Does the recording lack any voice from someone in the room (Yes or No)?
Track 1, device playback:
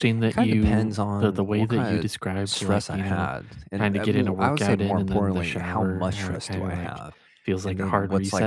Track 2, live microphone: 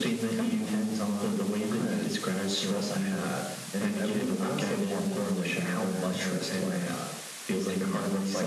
Yes